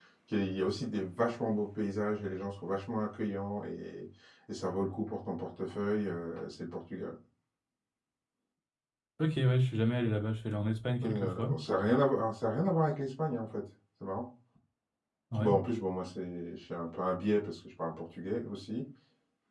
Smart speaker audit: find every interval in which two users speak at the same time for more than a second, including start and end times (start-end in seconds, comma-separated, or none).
none